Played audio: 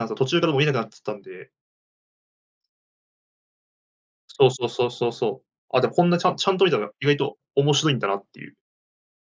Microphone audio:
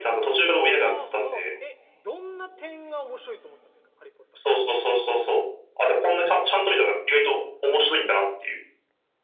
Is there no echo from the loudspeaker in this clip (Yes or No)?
No